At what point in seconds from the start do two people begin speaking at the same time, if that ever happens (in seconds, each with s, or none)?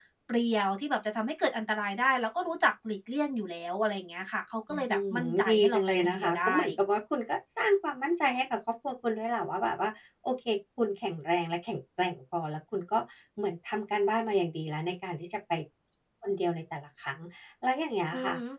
4.7 s